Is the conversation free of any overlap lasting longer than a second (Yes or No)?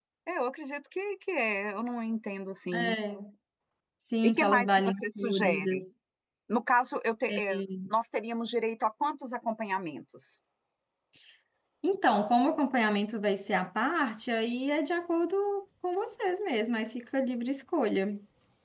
No